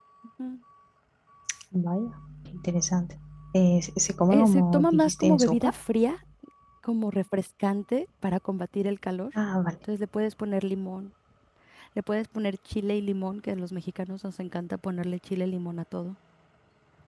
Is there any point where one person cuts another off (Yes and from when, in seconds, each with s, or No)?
Yes, from 4.3 s